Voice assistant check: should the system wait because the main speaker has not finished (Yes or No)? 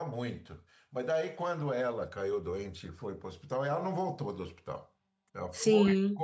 Yes